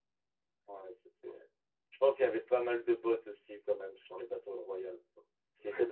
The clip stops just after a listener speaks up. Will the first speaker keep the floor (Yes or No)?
No